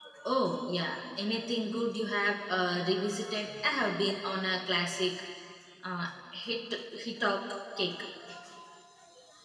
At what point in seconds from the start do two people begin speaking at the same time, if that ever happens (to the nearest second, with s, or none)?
none